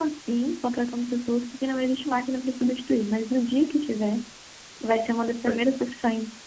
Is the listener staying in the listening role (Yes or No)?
Yes